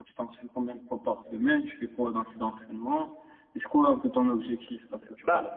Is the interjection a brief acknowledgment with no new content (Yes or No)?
No